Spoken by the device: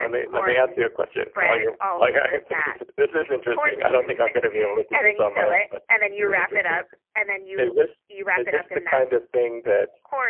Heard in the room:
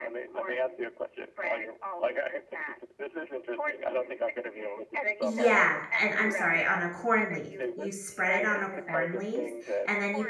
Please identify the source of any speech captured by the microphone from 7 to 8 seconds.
both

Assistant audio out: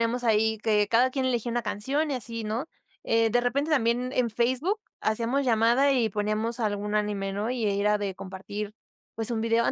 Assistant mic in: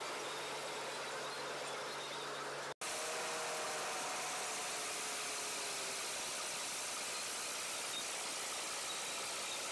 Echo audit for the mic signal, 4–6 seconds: neither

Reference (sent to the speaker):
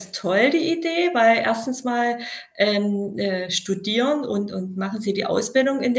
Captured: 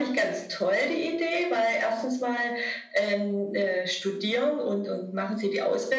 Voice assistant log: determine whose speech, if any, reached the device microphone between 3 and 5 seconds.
echo only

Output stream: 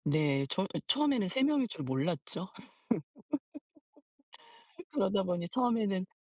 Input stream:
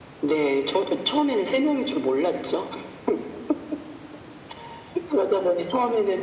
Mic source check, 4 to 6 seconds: echo only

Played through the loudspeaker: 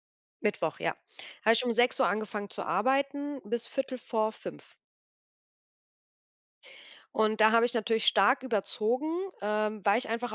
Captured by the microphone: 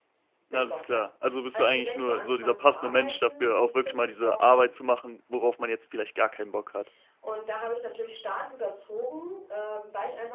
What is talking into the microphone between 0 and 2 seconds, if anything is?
both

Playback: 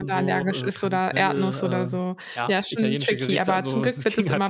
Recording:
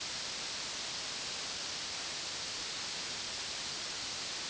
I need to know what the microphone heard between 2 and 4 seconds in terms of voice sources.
neither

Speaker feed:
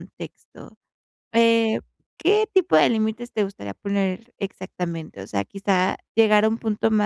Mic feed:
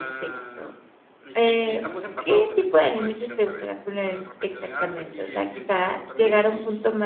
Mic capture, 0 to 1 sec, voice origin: both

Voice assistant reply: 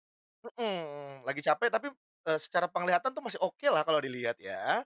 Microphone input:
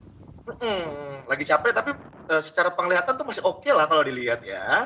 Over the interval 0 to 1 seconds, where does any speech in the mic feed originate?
echo only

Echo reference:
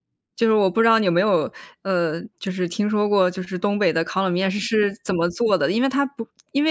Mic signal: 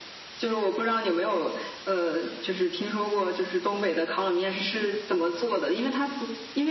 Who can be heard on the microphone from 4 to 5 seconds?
echo only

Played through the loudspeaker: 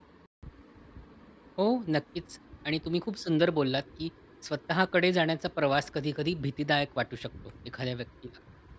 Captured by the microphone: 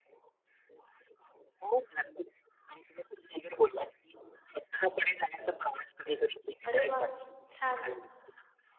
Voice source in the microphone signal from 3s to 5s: echo only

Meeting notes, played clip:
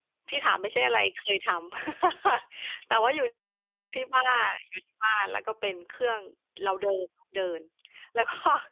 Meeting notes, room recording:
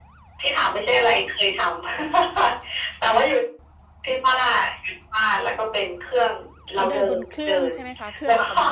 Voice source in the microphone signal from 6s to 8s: both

